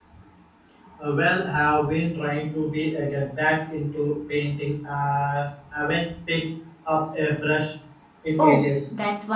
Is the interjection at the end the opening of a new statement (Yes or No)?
Yes